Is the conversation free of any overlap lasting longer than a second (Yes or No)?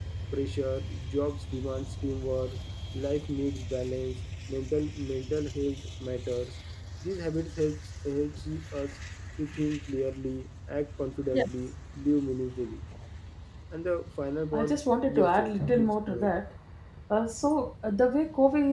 No